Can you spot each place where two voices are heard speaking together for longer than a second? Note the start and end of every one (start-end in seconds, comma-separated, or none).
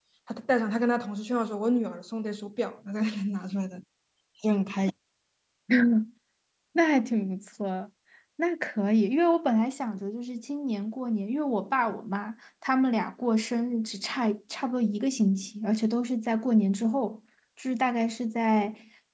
none